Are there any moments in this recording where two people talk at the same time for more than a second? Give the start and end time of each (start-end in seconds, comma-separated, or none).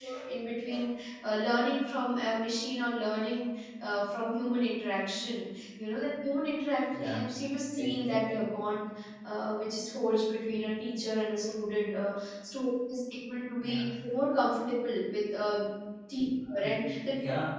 none